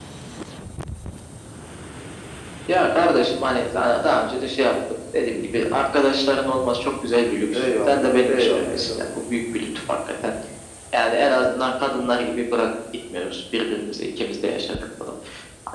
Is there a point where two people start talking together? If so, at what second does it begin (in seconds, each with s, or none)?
7.5 s